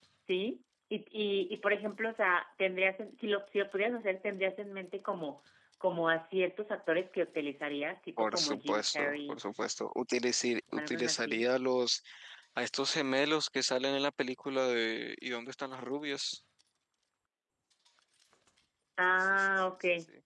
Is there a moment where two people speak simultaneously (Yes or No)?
Yes